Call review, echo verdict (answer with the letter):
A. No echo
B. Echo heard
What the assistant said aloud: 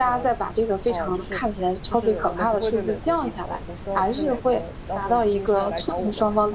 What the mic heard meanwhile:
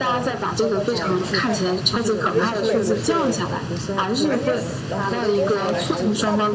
B